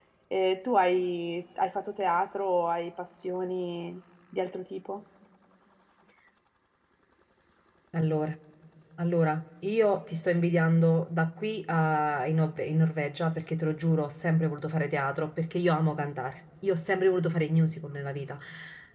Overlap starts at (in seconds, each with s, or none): none